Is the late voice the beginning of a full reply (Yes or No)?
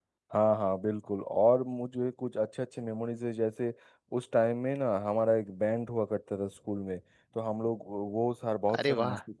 No